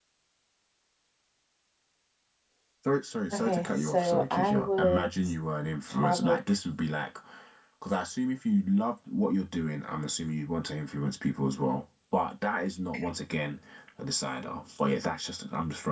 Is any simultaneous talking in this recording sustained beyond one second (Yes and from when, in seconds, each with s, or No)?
Yes, from 3.3 s